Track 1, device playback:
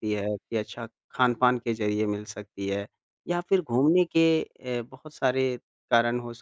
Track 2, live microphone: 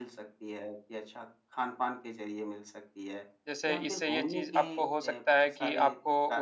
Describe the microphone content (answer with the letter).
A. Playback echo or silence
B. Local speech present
B